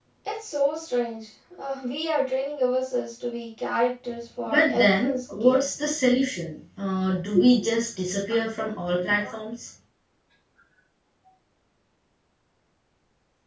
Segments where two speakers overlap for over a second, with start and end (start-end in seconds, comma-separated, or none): 4.5-5.7